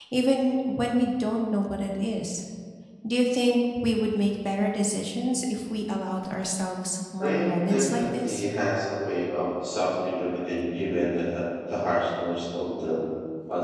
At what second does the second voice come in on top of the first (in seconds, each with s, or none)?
7.2 s